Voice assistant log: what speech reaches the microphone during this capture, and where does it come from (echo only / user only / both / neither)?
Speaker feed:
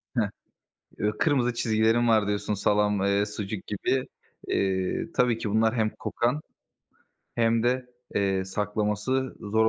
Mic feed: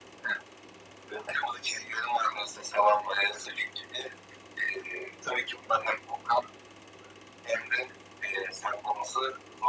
echo only